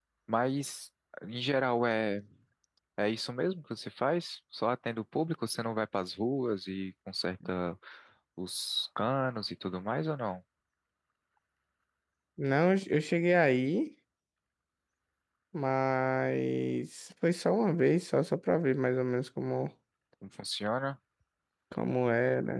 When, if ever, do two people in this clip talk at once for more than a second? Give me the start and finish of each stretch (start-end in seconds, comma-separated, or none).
none